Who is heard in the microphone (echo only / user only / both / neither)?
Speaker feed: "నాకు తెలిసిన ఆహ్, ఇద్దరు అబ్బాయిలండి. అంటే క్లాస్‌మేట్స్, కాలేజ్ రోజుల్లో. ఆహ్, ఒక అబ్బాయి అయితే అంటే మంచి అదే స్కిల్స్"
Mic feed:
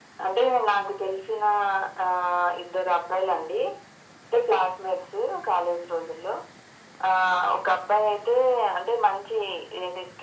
echo only